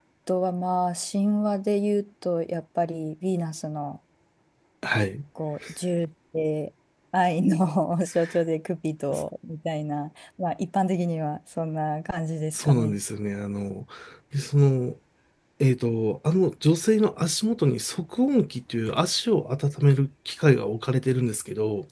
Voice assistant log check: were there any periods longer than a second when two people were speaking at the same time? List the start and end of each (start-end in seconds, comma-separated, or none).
none